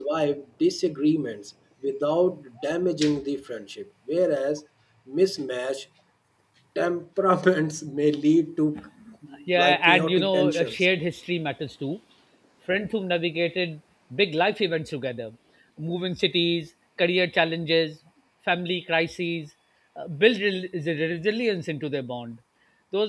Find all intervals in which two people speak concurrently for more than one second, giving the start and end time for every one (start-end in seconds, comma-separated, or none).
9.6-10.8